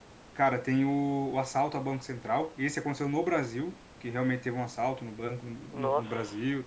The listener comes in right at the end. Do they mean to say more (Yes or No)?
No